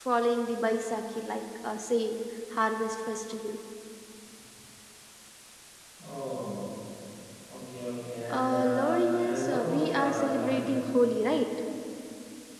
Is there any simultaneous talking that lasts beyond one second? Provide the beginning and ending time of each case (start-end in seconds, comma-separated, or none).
8.3-10.7